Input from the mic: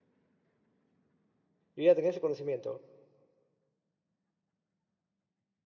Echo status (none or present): none